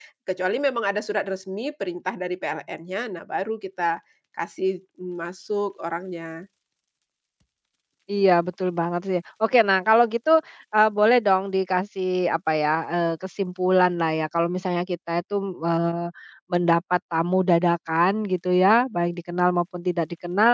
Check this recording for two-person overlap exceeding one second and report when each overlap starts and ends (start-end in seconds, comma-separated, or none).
none